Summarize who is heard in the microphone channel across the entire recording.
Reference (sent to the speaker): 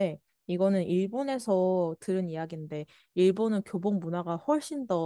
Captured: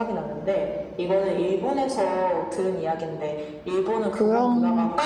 both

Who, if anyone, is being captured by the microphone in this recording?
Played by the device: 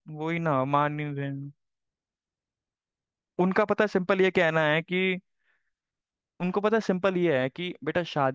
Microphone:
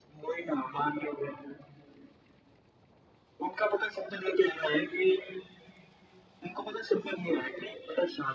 echo only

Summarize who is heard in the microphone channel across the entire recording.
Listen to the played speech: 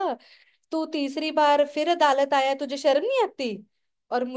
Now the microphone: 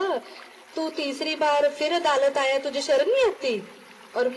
echo only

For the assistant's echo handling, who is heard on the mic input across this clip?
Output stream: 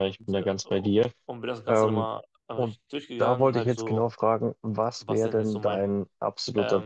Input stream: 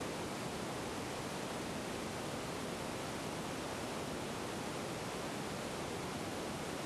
neither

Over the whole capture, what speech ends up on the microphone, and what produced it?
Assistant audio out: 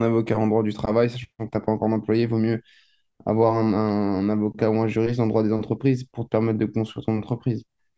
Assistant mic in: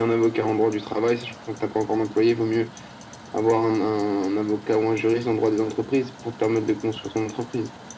echo only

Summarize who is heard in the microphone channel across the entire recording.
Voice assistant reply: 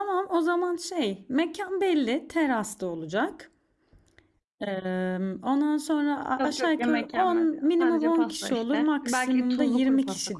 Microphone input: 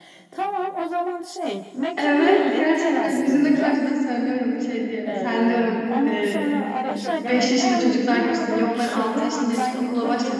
both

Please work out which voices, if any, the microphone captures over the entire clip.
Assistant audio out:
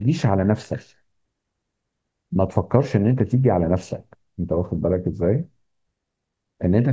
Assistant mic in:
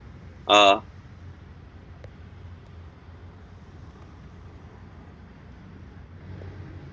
user only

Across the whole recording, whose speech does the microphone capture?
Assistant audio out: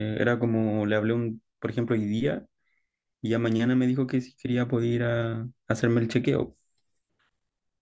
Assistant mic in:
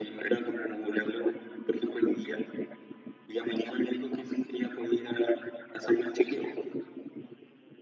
echo only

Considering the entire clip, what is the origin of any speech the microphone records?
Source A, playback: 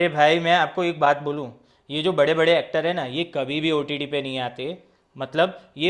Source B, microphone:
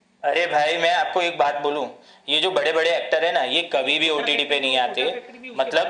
both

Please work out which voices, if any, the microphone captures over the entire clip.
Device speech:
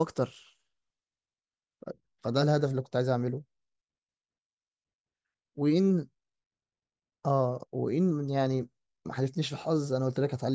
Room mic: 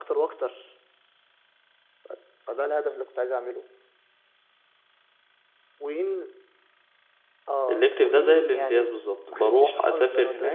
both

